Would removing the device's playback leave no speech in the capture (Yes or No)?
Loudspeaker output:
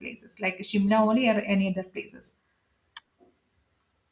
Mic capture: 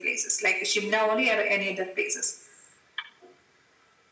Yes